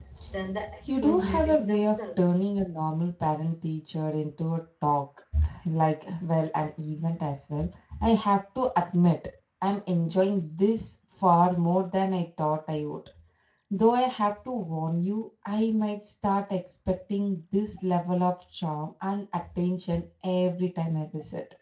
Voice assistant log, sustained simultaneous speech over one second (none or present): present